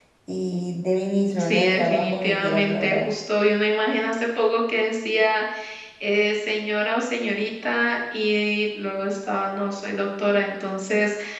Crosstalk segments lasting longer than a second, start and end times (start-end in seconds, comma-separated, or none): 1.4-3.1